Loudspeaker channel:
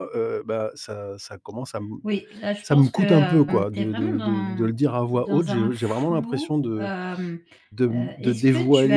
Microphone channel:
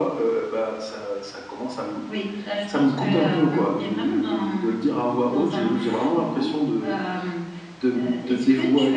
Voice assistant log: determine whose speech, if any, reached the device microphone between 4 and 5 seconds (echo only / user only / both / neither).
echo only